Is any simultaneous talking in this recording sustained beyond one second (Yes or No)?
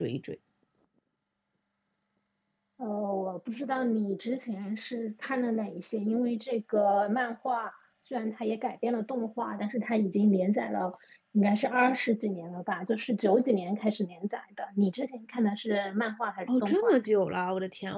No